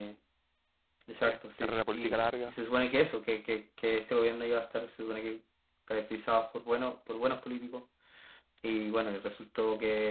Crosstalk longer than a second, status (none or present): present